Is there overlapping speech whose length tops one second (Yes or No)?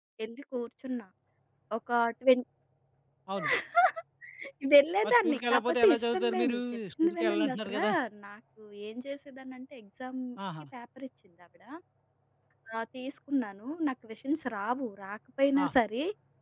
Yes